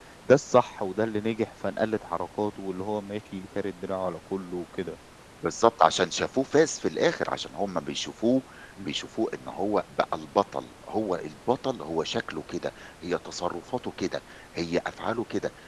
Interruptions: none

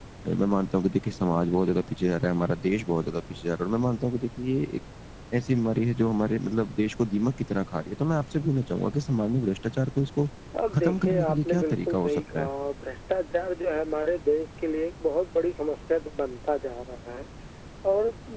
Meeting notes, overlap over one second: present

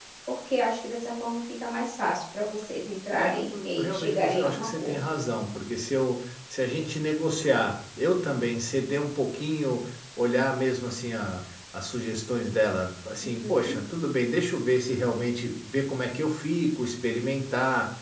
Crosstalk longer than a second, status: present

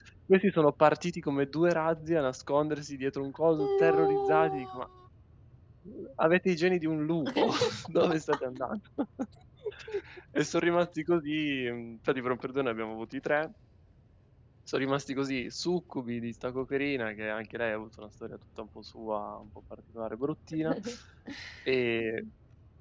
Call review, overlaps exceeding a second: present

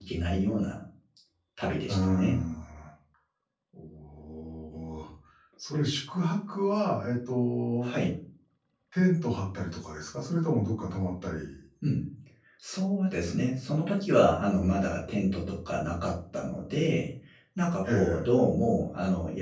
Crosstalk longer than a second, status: none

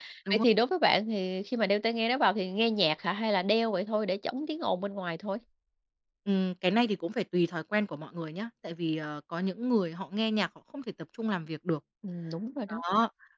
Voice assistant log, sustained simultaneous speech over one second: none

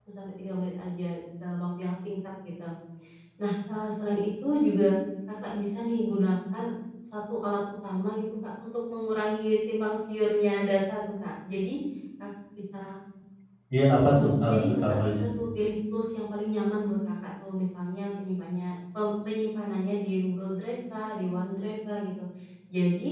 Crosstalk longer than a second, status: present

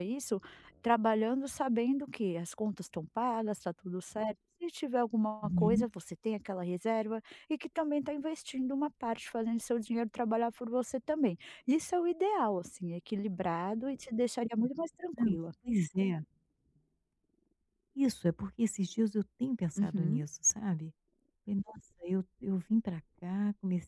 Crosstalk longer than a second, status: none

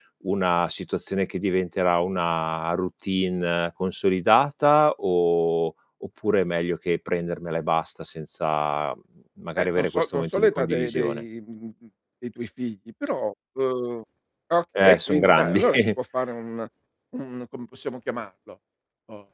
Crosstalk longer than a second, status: present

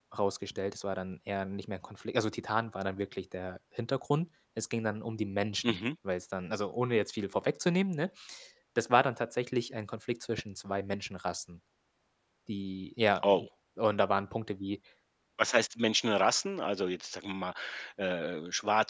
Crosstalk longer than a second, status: none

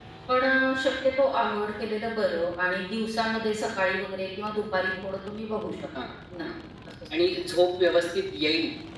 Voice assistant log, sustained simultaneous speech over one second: none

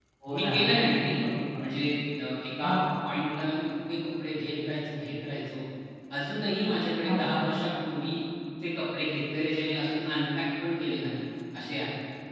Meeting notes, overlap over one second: none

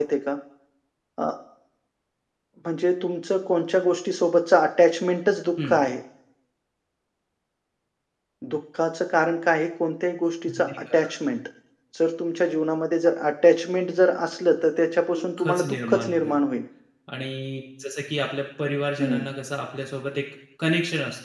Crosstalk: present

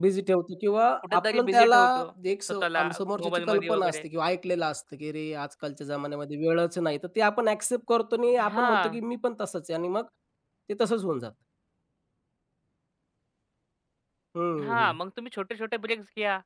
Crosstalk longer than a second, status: present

